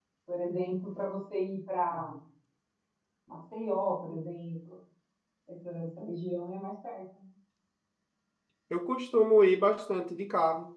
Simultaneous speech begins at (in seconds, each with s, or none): none